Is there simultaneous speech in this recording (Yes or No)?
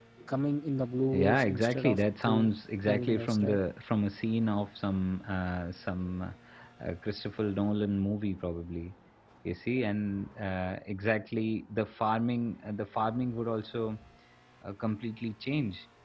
Yes